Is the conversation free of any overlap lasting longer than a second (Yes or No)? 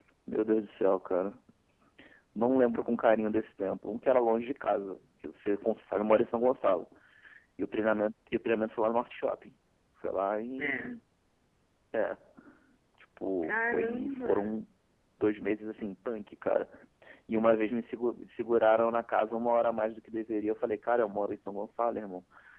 No